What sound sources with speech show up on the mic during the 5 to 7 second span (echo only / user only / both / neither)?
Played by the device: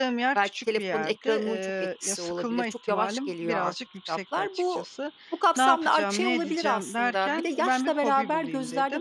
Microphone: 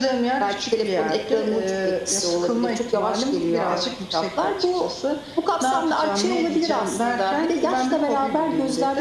echo only